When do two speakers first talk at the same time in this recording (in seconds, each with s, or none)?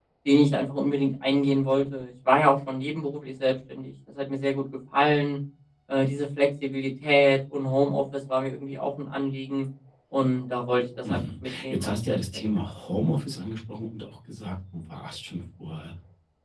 11.0 s